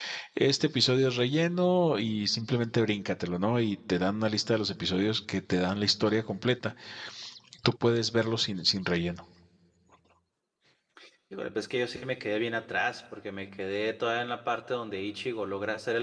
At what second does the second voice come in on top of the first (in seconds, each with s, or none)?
none